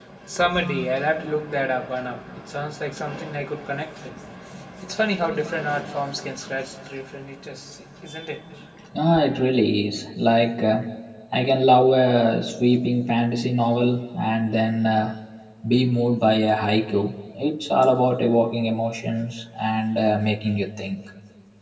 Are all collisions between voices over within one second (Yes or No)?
Yes